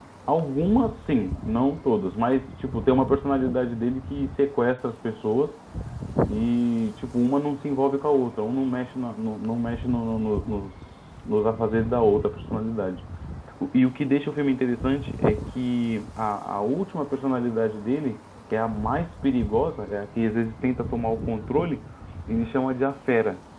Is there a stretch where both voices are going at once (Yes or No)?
No